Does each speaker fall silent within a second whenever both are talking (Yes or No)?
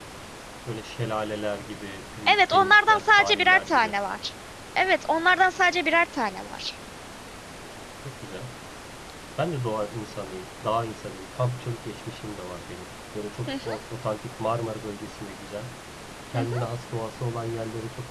No